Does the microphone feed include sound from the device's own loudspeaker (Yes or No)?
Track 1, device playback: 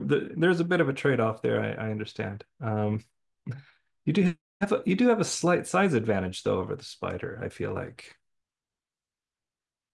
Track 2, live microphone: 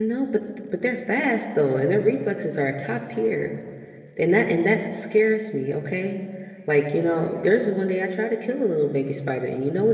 No